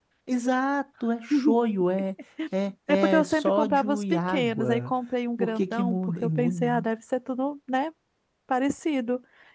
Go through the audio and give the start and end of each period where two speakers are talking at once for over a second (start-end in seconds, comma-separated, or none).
3.2-4.9, 5.4-6.8